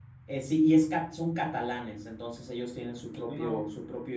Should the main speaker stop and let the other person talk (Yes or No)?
No